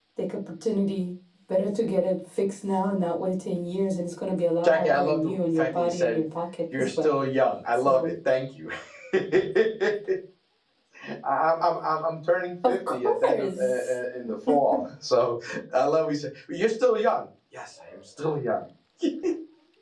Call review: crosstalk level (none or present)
present